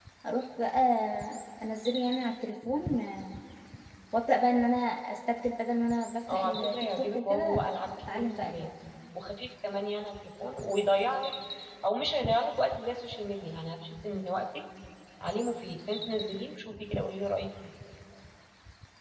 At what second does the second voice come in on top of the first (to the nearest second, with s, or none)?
6 s